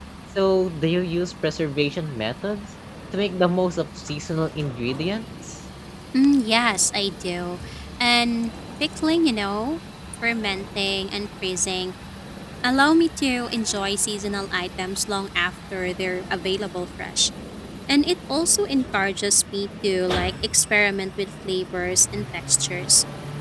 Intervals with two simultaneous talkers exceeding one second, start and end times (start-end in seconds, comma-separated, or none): none